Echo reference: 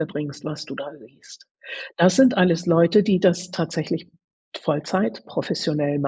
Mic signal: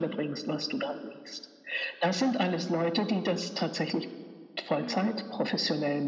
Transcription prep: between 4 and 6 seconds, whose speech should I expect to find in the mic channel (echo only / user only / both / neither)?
both